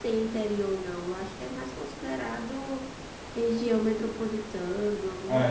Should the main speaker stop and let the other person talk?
Yes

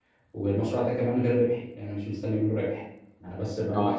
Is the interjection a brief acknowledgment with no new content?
Yes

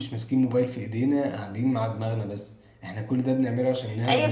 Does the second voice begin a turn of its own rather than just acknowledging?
Yes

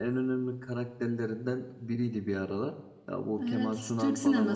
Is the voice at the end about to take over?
Yes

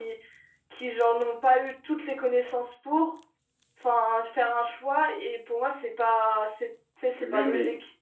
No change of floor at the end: No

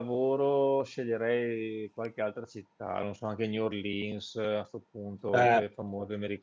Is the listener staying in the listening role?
Yes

